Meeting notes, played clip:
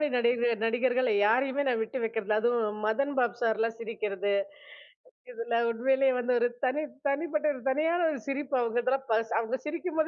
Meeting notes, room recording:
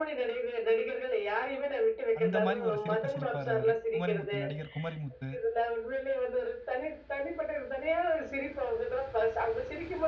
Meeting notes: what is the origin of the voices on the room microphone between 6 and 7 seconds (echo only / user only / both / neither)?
echo only